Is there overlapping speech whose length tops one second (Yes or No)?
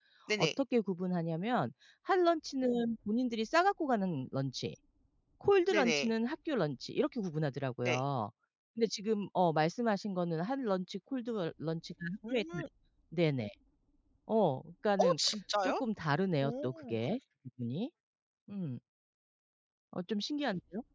No